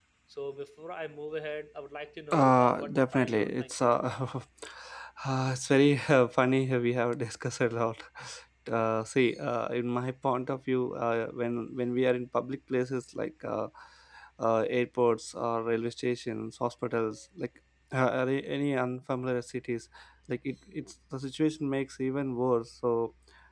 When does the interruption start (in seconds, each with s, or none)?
2.3 s